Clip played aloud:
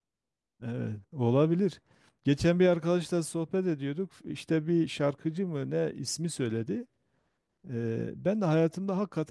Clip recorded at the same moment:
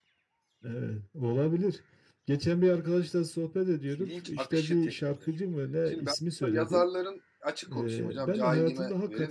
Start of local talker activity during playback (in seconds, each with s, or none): 4.0 s